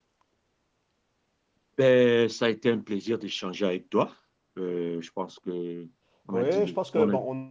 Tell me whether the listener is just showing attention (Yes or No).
No